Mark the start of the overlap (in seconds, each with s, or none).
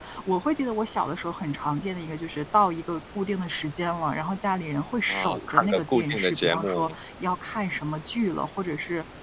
5.1 s